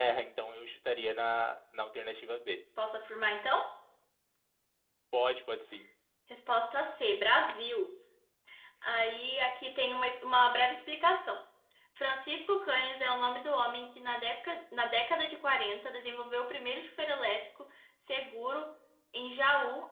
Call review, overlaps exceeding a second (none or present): none